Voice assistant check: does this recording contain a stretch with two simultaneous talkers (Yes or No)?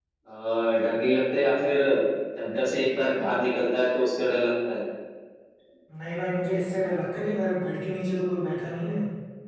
No